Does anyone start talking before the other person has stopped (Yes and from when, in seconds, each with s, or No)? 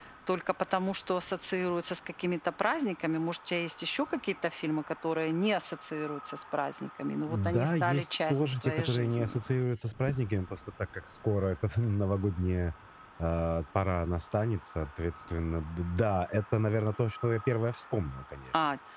Yes, from 7.3 s